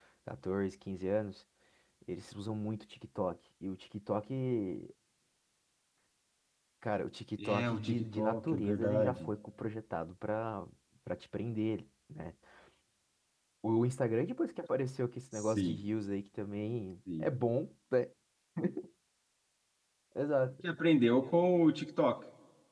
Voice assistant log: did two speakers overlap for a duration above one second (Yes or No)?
Yes